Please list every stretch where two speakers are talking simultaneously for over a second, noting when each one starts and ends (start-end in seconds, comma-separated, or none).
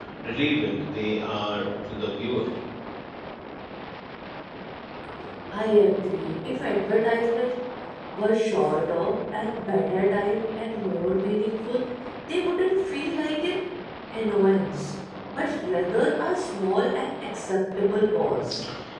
none